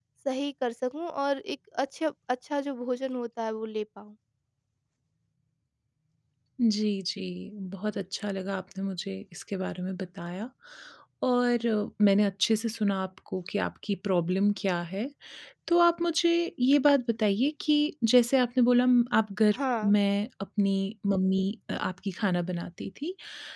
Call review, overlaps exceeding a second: none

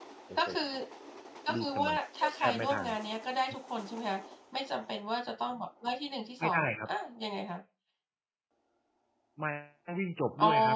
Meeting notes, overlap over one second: present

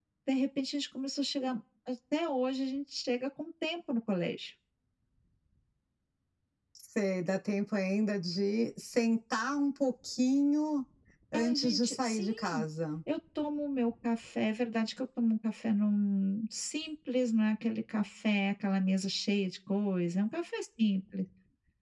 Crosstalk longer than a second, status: present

